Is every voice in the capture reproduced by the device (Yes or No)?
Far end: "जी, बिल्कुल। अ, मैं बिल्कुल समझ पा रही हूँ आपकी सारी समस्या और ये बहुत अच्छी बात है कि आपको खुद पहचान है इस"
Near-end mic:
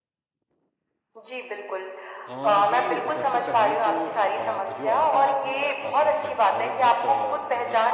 No